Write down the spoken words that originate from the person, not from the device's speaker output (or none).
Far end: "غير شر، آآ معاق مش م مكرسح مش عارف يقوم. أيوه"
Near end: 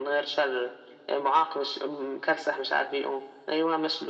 none